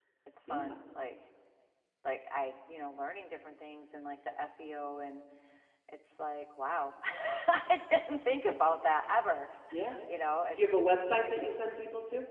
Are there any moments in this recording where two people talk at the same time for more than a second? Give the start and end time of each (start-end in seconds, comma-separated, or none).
none